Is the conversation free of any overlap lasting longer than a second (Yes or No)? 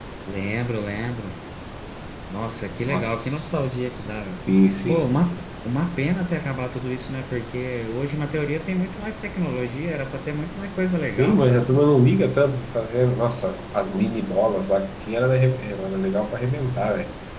No